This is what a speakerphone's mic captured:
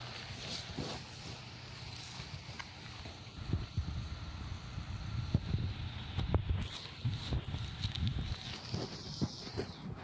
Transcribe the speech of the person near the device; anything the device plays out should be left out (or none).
none